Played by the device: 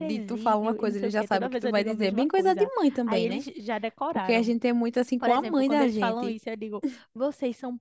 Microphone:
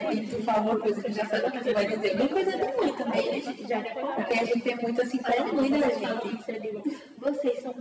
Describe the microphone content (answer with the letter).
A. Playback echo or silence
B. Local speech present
B